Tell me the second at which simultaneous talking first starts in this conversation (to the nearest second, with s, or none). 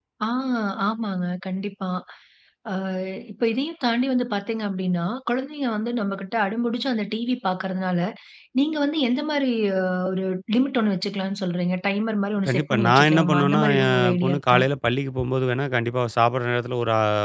12 s